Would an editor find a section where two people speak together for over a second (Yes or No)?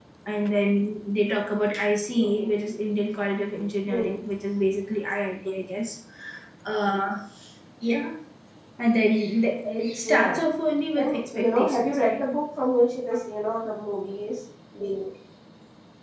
Yes